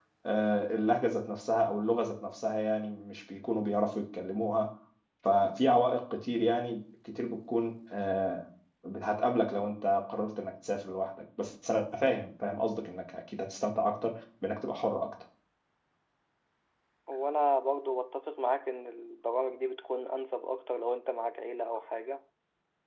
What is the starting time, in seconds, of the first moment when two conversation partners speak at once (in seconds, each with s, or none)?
none